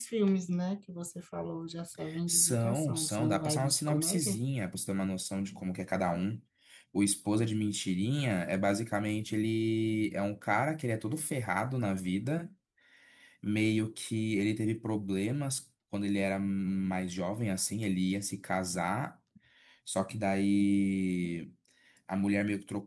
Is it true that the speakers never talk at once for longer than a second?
No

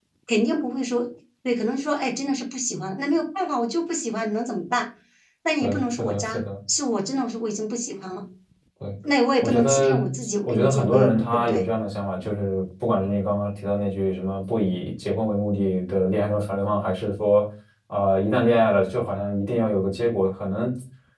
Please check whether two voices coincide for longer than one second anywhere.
Yes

